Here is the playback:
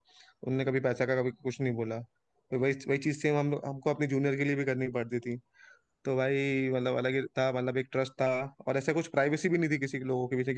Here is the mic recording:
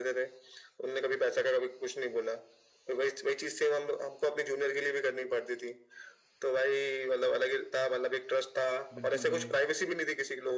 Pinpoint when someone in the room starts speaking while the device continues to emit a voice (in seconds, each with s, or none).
8.9 s